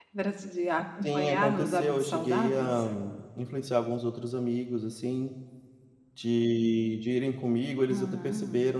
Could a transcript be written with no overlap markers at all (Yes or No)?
No